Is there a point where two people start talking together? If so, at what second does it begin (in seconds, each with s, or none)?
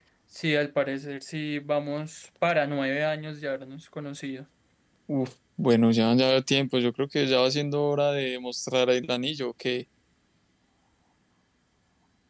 none